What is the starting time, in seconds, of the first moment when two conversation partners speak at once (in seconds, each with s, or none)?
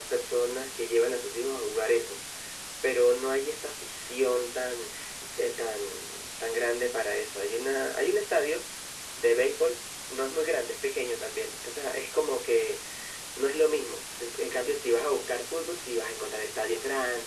none